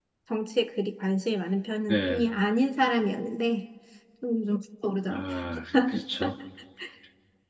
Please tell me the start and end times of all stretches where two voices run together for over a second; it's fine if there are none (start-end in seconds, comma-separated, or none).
none